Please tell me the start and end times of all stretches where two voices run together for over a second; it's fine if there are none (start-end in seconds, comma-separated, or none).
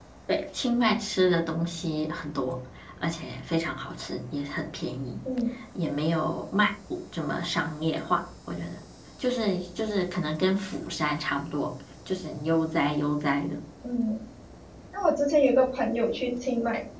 none